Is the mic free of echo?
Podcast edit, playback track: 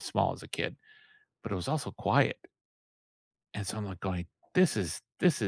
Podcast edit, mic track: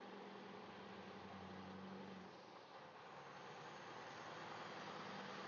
Yes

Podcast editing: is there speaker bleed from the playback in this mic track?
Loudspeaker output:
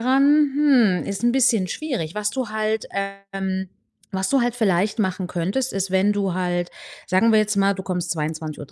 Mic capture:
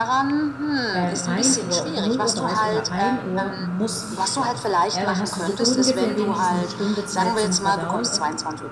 Yes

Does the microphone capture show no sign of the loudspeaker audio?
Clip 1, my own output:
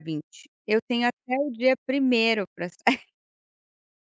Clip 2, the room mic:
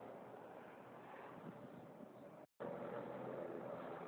Yes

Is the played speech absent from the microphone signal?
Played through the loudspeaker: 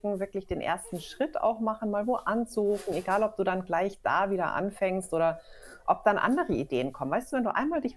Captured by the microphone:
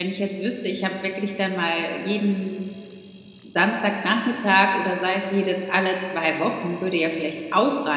Yes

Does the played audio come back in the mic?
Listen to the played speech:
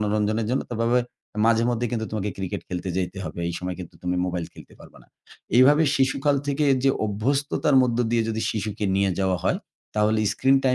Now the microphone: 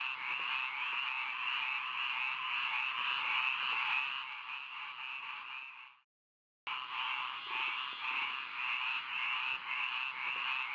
No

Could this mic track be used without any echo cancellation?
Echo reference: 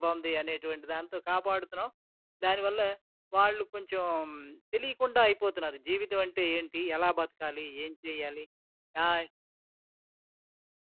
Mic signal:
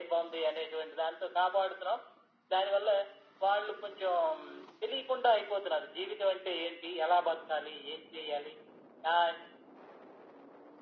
No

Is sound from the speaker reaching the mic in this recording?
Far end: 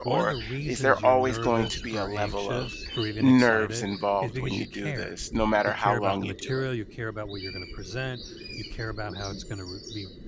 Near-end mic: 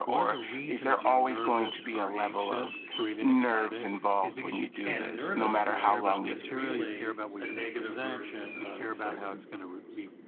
Yes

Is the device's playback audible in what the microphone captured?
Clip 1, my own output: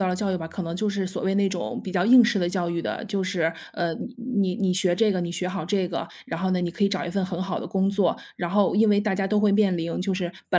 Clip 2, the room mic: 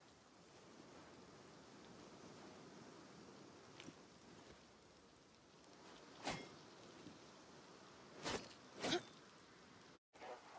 No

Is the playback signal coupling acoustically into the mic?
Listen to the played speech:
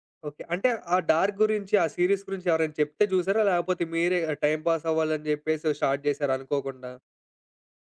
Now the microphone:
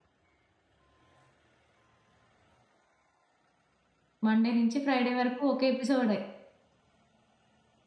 No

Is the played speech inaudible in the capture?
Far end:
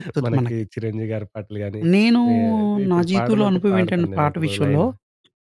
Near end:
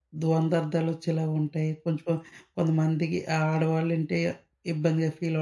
Yes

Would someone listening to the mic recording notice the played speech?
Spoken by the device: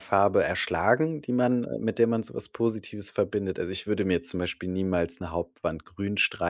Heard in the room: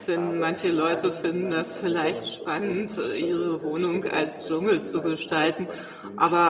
Yes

